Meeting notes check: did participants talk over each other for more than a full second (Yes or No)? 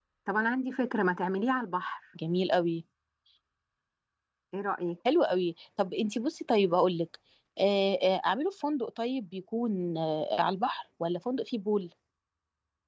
No